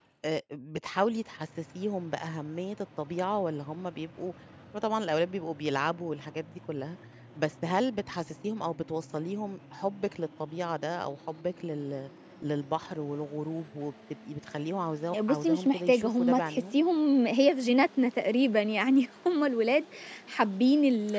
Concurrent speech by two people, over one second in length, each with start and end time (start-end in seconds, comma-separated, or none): 15.3-16.8